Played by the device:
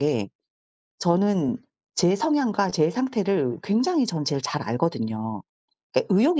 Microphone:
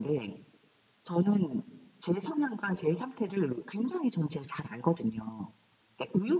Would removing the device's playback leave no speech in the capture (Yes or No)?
Yes